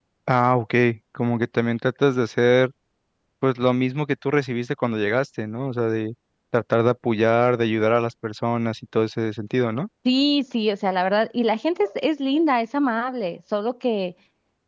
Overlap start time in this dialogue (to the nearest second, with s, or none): none